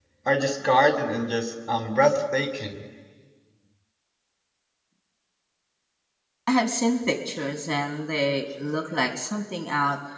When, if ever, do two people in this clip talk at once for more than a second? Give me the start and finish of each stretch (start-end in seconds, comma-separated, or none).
none